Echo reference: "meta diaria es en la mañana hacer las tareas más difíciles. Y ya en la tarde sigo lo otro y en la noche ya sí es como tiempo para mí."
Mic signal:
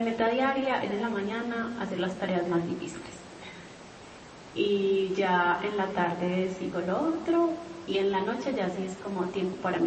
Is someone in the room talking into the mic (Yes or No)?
No